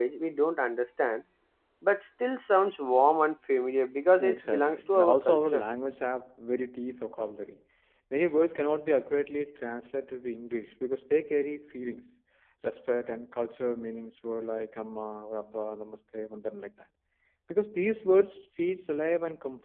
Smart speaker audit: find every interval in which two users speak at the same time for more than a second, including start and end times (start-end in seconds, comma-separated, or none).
4.2-5.6